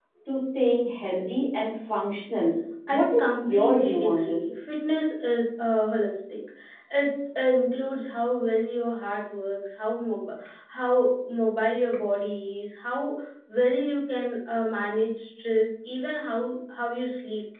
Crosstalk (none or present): present